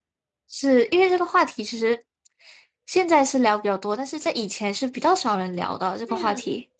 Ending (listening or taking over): taking over